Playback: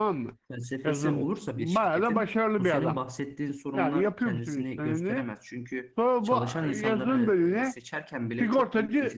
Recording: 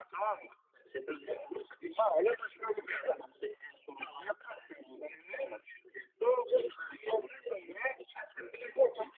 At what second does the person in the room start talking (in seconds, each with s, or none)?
none